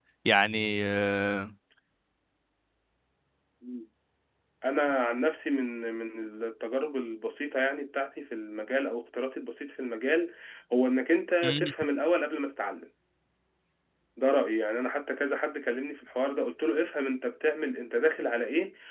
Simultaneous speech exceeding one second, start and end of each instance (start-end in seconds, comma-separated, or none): none